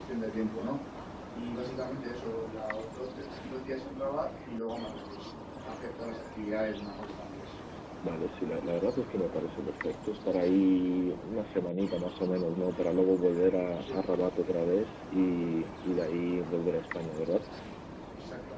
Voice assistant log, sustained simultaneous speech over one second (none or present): none